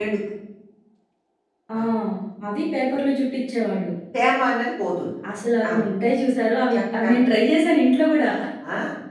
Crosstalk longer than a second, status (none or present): none